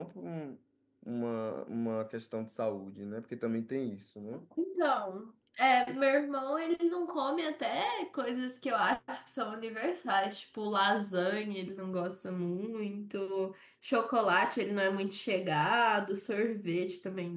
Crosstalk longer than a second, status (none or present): none